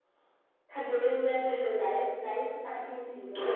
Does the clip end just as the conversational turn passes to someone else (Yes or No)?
Yes